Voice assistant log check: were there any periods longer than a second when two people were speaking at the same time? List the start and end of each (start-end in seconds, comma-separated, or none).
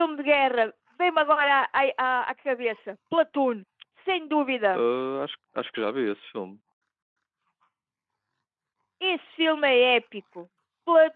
none